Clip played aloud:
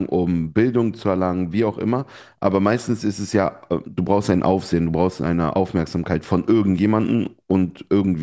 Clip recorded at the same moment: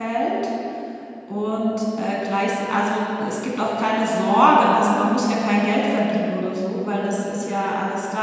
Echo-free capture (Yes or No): Yes